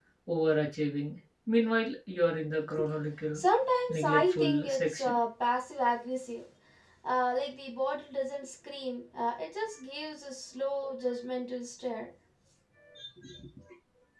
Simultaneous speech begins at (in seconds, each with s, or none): 3.9 s